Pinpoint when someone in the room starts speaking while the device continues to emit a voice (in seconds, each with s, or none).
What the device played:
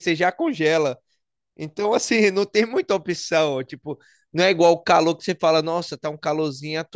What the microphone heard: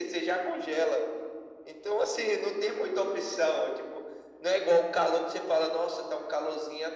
none